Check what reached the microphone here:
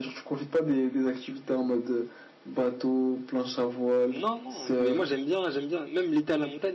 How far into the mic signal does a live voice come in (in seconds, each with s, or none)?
4.1 s